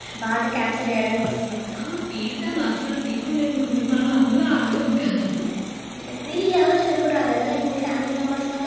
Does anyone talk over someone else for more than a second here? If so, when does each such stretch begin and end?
none

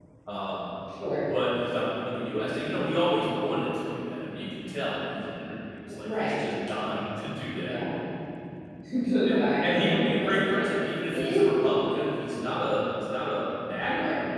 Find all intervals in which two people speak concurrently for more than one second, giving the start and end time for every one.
9.4-10.6

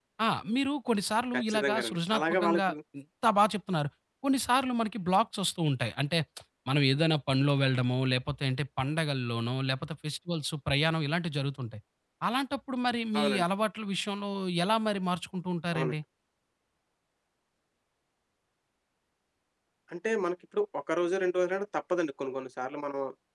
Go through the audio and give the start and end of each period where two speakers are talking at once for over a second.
1.3-2.7

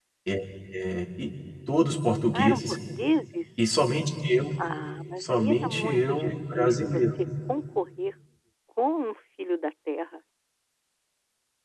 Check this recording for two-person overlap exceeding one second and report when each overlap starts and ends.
5.2-7.0

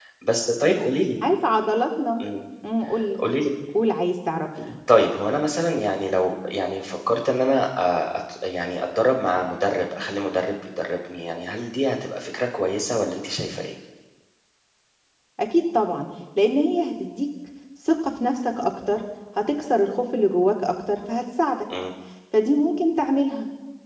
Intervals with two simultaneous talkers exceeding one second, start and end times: none

